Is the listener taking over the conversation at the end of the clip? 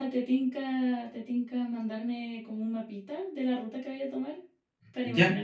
Yes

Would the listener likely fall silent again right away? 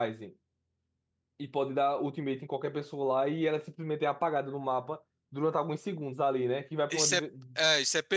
No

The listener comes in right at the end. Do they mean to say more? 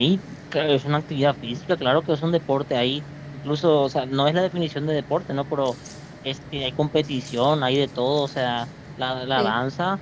No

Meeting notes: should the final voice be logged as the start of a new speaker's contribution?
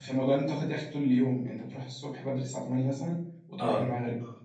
No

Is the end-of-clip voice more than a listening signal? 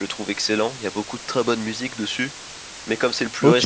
No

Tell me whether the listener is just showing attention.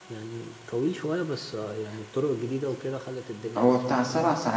No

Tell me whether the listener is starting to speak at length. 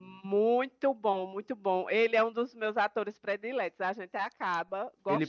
Yes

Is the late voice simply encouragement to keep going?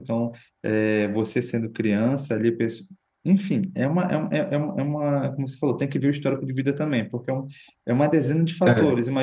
Yes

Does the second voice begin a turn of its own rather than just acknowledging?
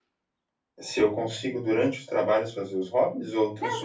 Yes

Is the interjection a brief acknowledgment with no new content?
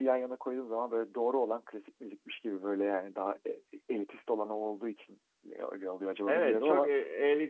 No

